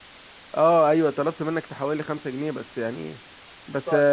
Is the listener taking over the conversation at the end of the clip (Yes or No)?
No